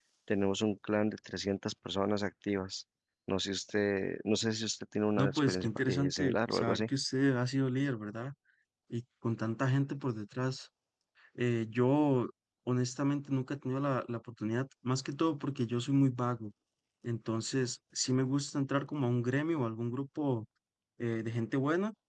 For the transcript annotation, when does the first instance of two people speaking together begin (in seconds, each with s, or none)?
5.2 s